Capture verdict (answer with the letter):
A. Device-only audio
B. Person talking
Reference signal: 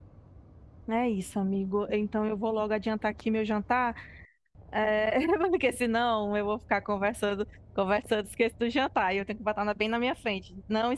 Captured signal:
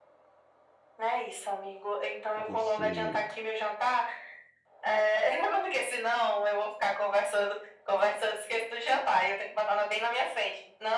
B